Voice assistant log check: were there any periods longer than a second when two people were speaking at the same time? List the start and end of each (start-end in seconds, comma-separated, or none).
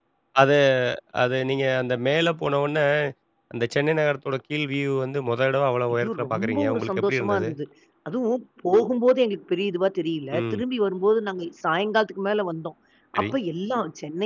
5.9-7.5